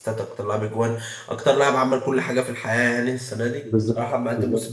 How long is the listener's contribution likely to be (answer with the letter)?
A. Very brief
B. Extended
A